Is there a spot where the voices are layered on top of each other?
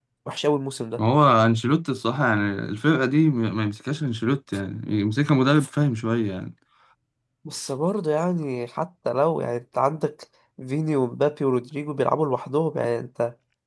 No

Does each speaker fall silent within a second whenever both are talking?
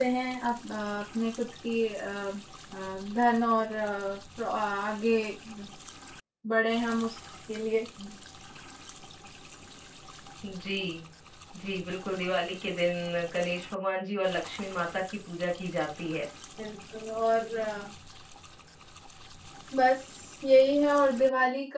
Yes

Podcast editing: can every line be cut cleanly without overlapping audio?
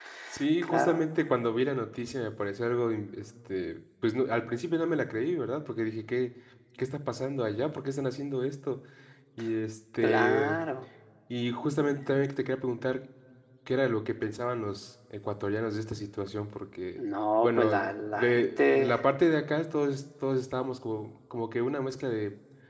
No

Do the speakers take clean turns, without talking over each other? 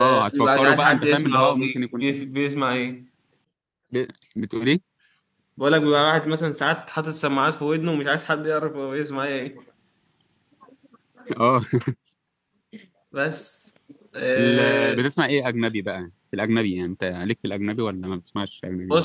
No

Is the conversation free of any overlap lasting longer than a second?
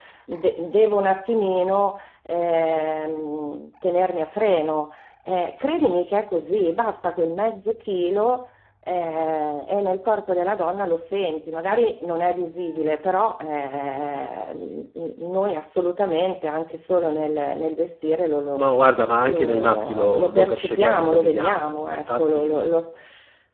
No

